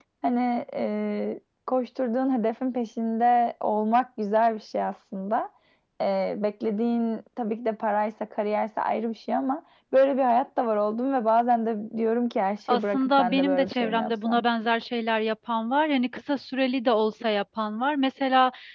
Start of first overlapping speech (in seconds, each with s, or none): 12.7 s